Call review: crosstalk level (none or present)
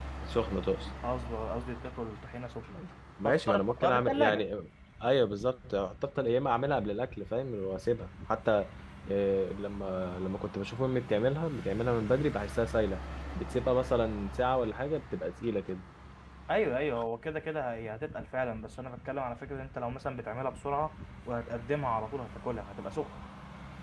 present